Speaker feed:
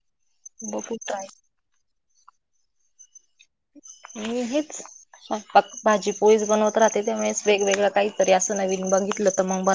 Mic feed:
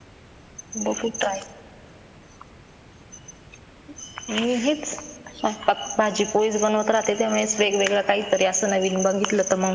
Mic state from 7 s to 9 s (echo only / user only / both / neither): echo only